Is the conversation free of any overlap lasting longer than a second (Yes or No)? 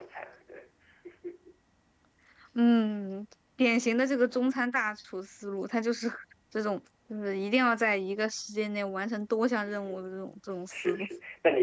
Yes